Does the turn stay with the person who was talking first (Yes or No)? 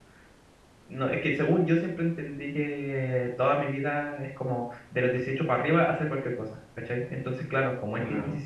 Yes